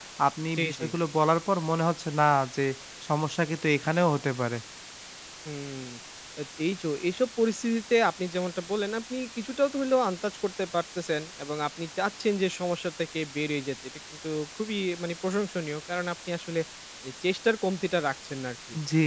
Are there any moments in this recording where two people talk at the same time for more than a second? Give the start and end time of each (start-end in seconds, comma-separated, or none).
none